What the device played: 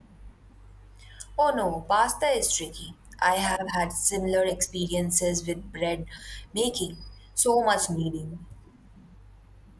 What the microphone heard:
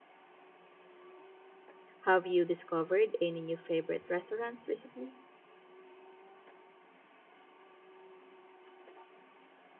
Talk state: user only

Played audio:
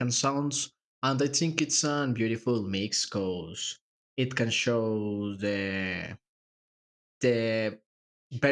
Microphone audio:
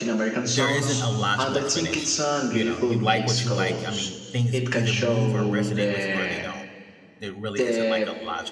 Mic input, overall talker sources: both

